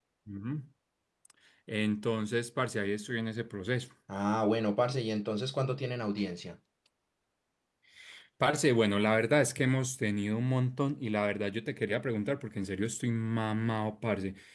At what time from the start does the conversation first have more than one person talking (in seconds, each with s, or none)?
none